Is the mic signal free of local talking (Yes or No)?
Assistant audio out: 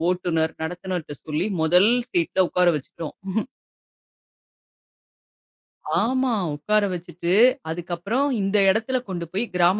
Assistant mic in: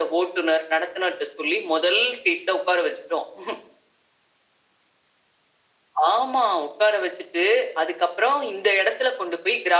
Yes